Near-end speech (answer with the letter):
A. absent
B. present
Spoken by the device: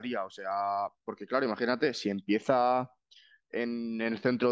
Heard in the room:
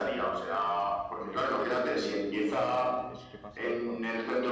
B